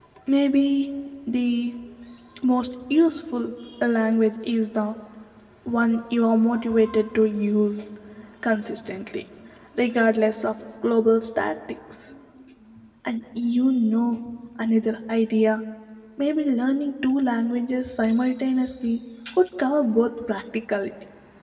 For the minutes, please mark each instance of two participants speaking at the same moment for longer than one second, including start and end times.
none

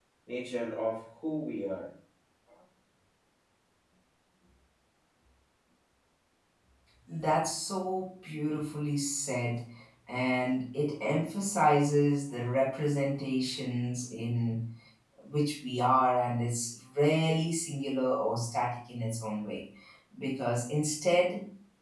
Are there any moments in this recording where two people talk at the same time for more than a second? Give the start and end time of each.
none

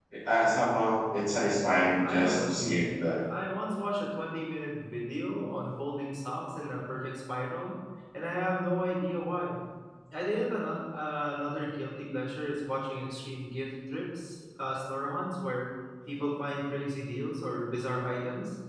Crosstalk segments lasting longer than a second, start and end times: 1.7-3.1

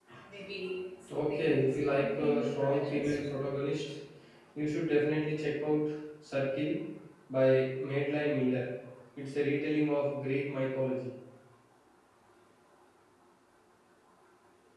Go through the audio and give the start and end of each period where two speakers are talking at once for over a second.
1.1-3.3

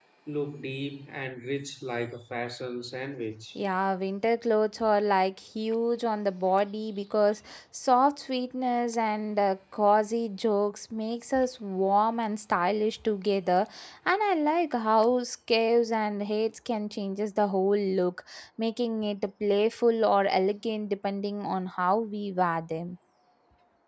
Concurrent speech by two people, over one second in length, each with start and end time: none

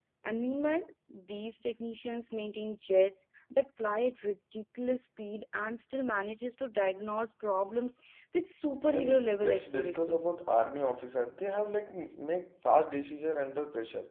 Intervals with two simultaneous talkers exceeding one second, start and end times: 8.9-10.2

